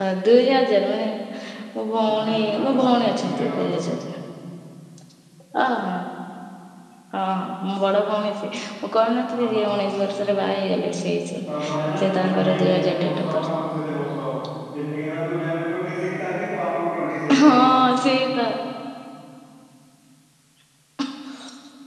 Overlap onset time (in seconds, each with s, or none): 2.1 s